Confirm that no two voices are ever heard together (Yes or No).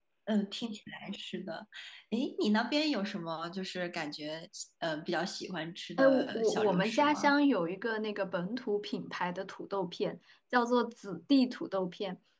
No